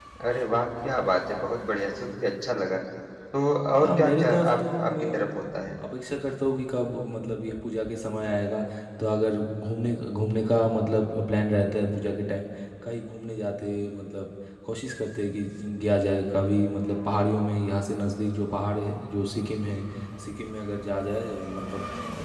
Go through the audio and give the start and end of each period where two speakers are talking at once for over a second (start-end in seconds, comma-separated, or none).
3.8-5.3